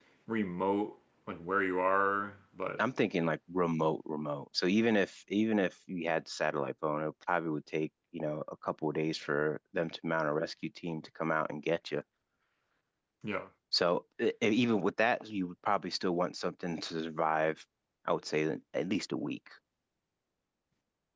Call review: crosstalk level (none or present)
none